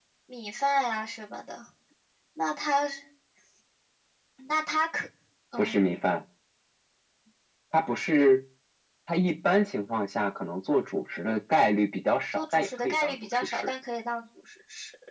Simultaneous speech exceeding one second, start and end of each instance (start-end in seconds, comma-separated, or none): 12.3-13.7